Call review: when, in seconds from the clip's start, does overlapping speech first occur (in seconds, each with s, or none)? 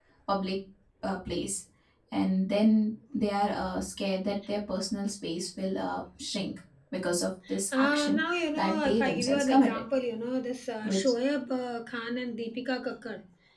7.7 s